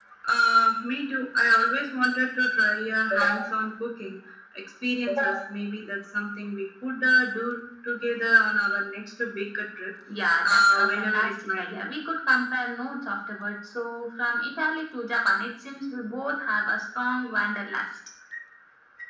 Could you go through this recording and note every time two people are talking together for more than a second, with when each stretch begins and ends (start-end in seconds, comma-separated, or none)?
10.4-11.9